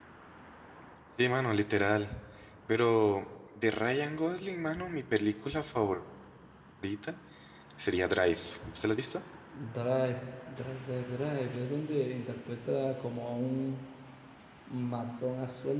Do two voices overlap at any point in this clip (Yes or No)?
No